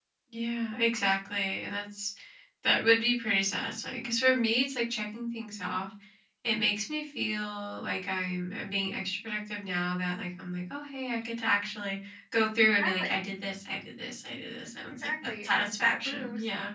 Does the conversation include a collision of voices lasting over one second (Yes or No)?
Yes